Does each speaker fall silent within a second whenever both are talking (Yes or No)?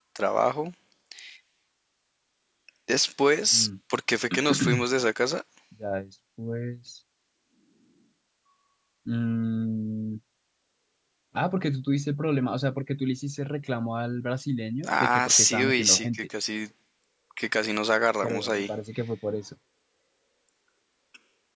No